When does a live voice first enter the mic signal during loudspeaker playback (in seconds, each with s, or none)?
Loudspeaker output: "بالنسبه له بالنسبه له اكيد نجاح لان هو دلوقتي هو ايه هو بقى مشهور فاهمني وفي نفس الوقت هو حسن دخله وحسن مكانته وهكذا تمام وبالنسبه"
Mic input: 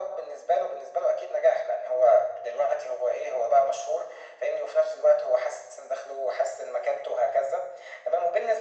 none